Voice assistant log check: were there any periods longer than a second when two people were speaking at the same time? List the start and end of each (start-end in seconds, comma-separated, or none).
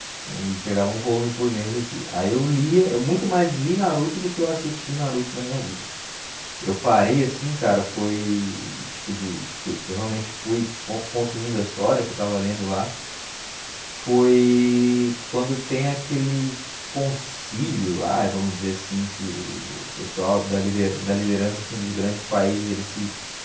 none